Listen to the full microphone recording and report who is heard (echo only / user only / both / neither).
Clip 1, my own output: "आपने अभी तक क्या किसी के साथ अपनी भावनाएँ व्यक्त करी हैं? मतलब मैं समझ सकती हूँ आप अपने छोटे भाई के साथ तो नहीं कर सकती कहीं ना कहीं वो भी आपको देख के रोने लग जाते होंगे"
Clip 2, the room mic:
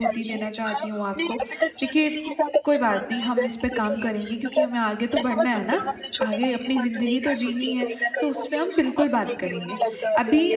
both